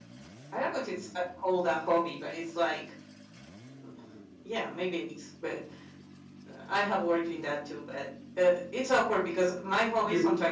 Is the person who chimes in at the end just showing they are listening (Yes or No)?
No